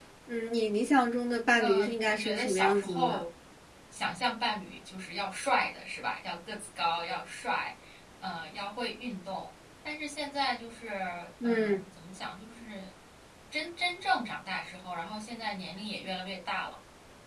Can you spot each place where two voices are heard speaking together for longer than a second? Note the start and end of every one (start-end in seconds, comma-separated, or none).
1.6-3.2